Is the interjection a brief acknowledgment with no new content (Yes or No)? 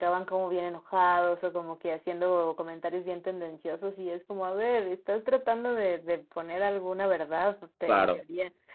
Yes